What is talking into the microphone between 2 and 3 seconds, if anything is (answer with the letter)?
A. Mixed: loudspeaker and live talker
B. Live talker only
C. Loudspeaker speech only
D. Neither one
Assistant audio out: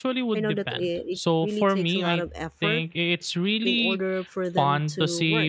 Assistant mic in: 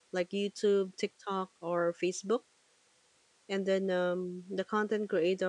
B